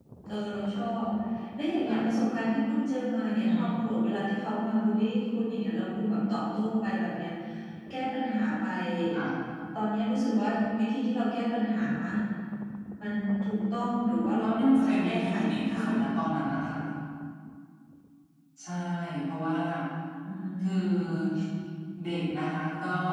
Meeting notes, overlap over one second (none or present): present